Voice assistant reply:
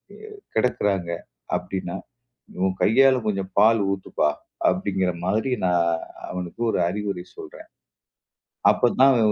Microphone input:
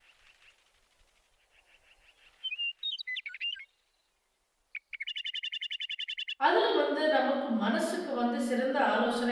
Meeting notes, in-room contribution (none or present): present